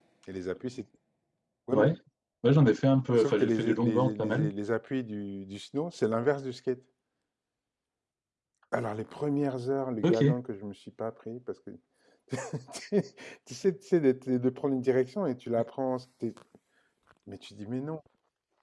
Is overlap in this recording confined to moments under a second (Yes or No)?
No